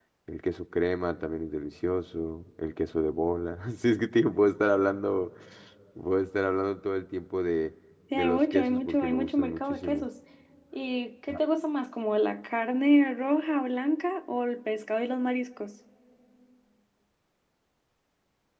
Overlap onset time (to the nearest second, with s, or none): 8 s